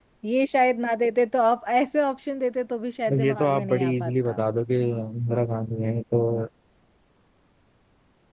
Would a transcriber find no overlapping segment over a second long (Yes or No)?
No